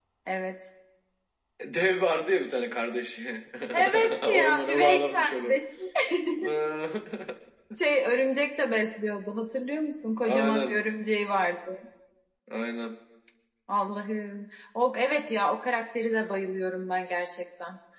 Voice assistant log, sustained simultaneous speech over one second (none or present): present